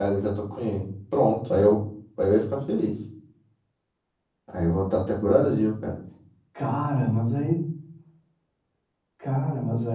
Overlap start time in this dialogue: none

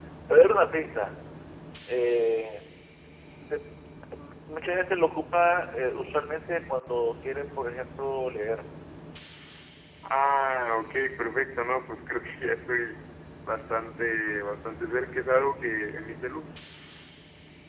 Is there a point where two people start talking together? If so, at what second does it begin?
none

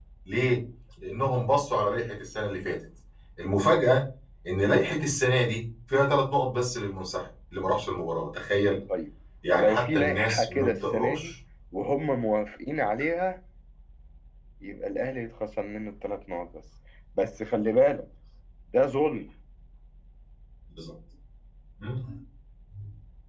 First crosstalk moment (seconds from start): 9.5 s

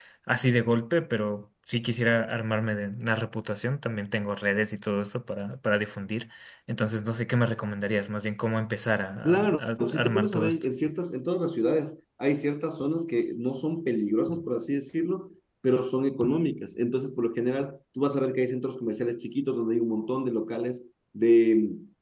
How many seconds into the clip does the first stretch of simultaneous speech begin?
9.2 s

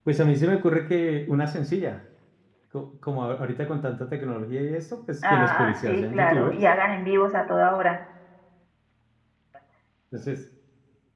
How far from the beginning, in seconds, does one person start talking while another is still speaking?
5.2 s

